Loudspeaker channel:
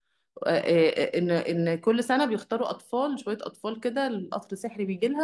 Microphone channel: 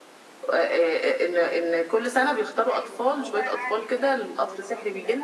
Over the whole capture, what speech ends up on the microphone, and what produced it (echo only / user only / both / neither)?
both